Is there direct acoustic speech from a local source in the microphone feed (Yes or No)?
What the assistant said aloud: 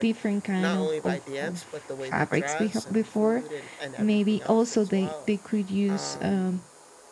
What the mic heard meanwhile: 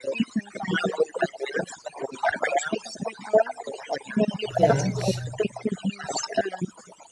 Yes